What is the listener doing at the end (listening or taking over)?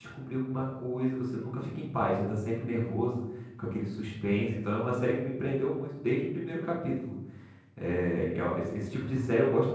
listening